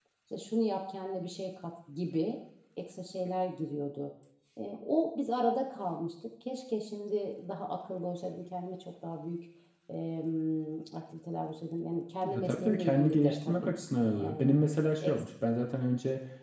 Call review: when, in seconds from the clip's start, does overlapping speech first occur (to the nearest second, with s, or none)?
12 s